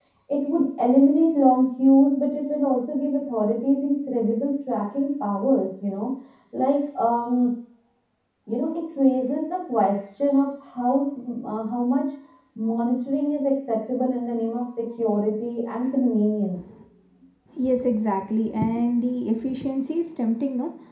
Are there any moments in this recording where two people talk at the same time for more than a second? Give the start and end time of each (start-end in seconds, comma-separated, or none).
none